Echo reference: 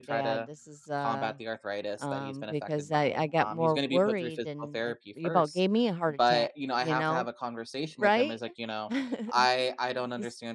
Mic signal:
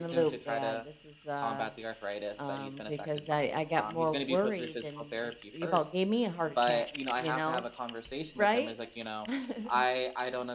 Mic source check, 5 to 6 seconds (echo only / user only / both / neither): echo only